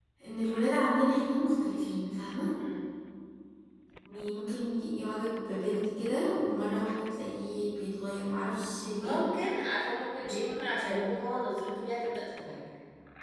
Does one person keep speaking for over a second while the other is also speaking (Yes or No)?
No